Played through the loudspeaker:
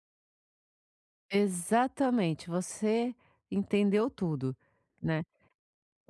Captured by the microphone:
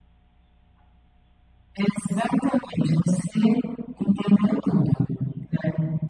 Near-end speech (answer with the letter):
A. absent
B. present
A